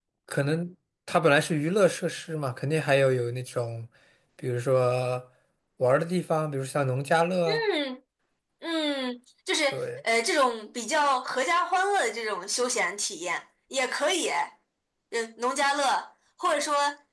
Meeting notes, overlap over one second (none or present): none